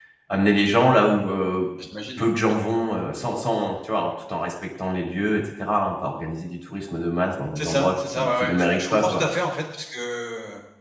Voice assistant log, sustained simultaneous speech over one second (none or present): present